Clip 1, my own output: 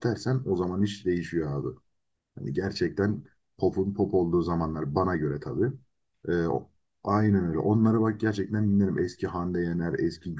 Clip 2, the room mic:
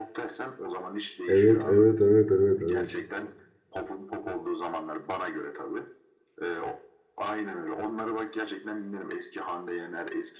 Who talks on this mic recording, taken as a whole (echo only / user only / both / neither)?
both